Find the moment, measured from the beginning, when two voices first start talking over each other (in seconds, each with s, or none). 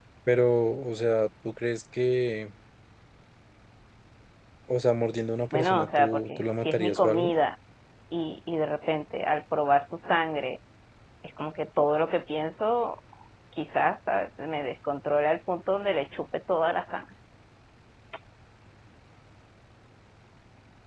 5.5 s